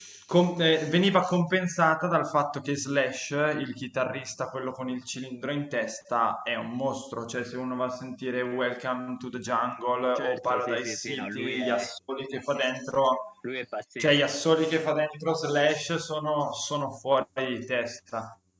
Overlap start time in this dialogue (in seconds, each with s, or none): 10.1 s